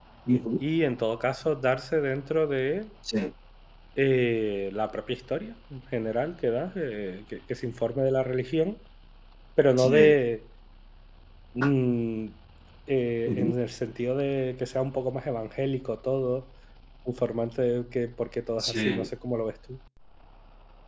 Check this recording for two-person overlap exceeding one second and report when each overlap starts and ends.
none

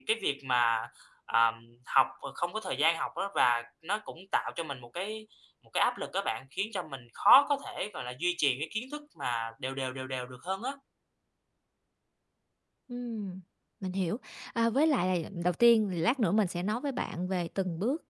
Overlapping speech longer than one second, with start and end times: none

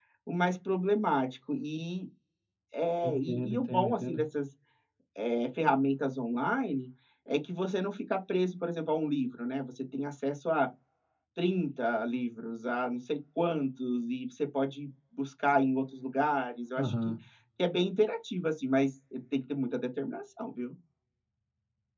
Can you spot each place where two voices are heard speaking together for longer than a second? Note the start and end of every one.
3.0-4.2

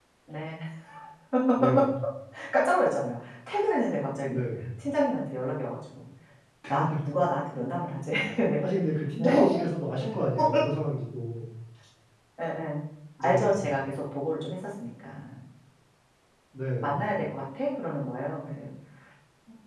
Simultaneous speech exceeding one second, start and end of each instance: none

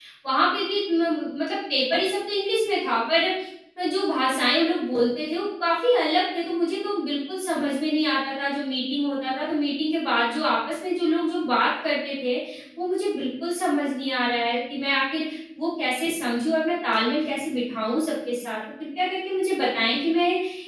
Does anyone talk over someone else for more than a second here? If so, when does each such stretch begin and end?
none

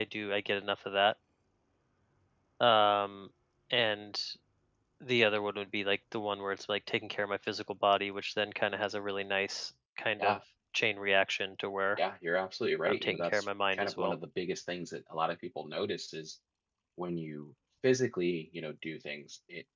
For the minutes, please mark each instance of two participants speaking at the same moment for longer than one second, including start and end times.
12.9-14.2

